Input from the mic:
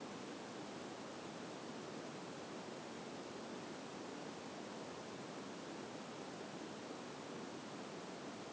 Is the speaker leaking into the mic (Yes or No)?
No